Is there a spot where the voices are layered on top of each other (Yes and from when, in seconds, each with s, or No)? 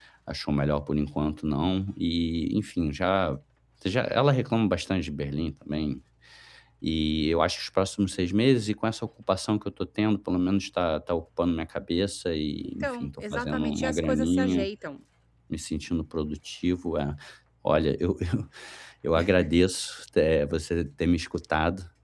Yes, from 12.6 s